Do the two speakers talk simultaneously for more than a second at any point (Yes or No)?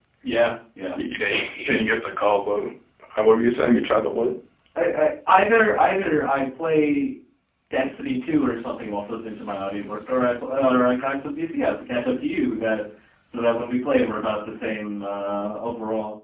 No